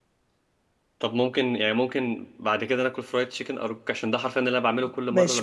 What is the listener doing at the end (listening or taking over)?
taking over